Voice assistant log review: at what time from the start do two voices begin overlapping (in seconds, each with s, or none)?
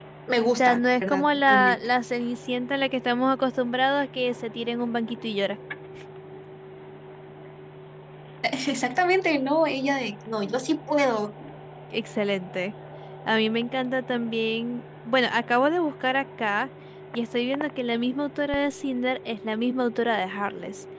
0.6 s